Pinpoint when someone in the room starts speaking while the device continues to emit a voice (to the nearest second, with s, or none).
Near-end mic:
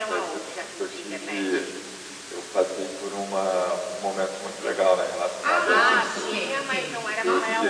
5 s